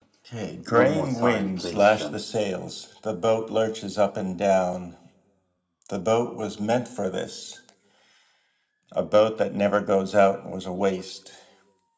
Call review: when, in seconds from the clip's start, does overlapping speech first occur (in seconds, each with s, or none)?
0.7 s